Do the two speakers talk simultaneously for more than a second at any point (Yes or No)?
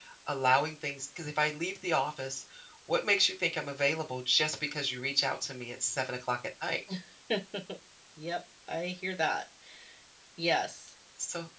No